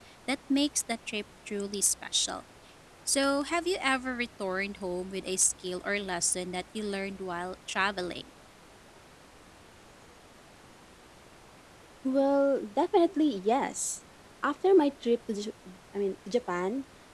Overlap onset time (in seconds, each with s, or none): none